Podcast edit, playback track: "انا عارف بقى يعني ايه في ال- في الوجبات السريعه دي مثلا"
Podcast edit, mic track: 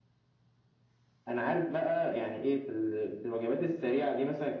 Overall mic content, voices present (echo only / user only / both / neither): echo only